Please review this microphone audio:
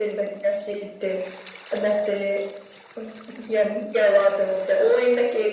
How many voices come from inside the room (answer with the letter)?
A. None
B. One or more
A